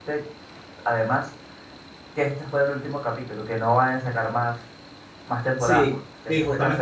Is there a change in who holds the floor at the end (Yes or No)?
Yes